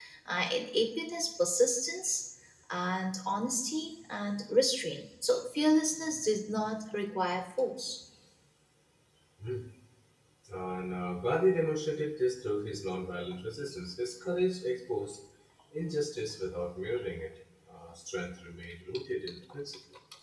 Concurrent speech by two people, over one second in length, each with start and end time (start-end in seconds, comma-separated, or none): none